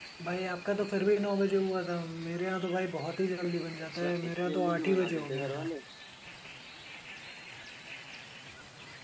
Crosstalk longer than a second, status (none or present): present